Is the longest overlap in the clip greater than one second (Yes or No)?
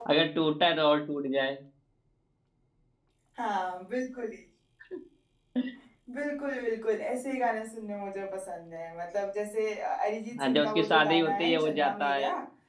Yes